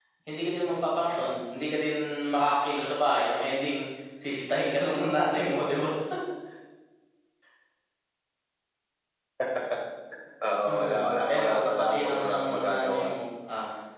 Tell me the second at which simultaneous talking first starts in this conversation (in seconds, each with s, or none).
10.7 s